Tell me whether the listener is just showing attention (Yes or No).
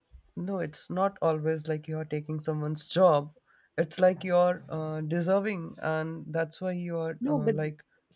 No